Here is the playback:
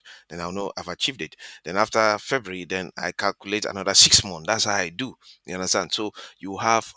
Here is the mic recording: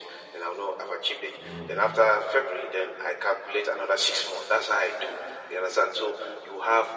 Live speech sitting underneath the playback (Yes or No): Yes